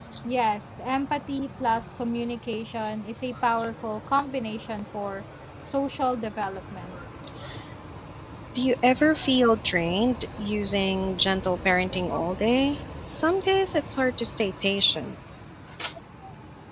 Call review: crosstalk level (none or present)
none